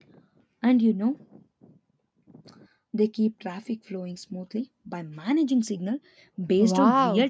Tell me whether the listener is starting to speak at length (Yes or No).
Yes